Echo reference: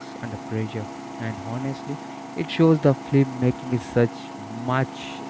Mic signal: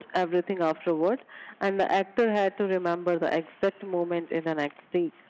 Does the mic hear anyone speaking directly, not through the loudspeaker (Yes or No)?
Yes